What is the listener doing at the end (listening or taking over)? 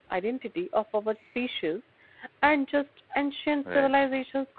listening